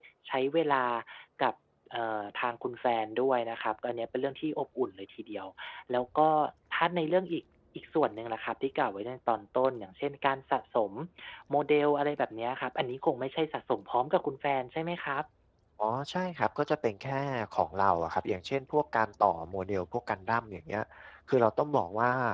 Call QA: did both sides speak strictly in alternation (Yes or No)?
Yes